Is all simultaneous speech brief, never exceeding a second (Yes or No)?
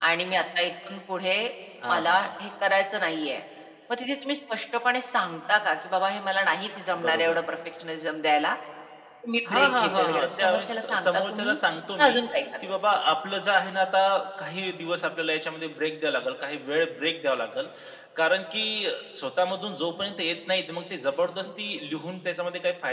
No